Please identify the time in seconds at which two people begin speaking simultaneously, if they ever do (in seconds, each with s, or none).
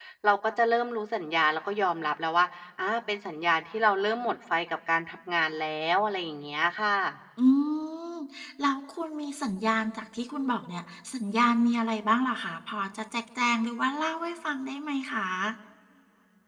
none